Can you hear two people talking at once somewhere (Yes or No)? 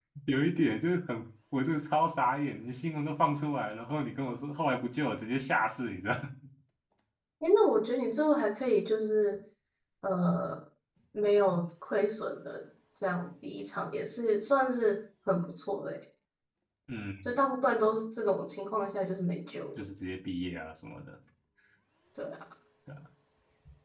No